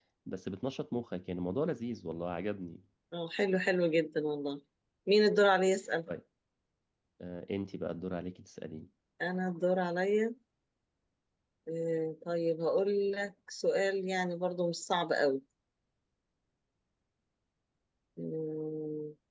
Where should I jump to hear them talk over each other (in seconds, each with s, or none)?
none